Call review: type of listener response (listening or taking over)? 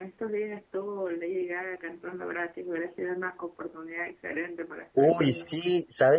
taking over